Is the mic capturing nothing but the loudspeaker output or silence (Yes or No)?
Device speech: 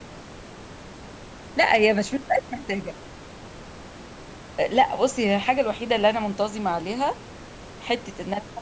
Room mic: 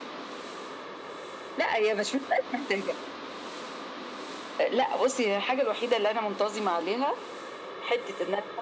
Yes